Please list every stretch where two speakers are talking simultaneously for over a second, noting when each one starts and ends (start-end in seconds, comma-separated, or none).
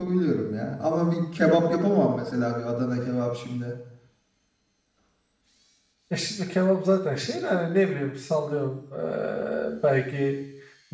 none